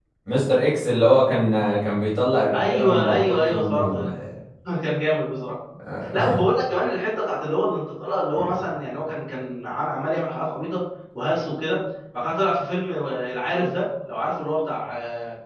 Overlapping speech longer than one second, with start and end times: 2.5-4.0

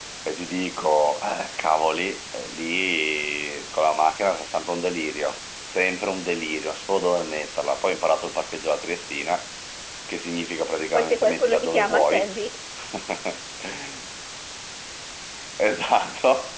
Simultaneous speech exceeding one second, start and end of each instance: 10.9-12.3

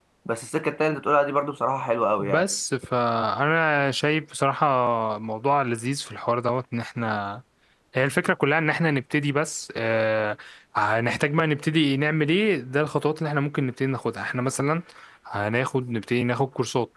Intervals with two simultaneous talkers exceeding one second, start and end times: none

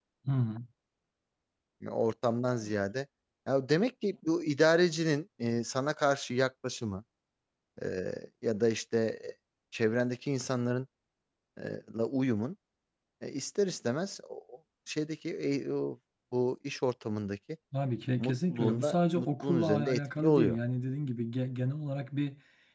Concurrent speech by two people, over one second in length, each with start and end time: 18.2-20.6

